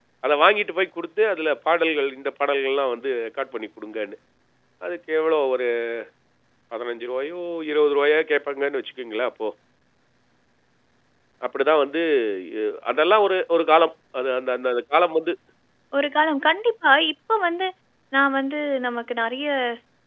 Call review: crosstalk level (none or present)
none